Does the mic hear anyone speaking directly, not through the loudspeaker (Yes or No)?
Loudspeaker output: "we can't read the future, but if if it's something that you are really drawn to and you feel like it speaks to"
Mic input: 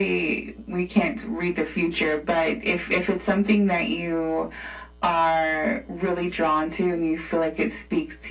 No